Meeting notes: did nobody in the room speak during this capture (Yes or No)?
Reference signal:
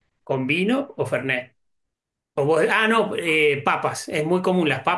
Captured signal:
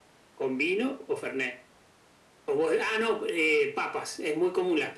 Yes